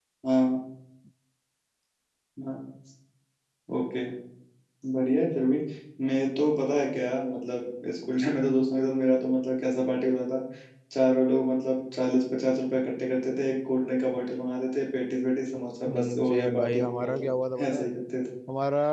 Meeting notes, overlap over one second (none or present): present